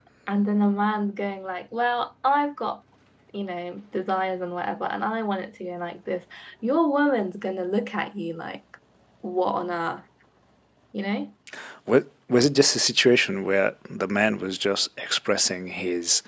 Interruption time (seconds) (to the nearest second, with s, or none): none